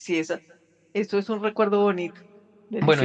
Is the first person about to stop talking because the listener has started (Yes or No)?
Yes